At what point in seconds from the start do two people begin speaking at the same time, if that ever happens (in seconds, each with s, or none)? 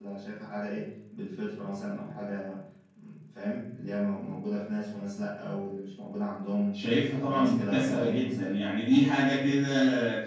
7.2 s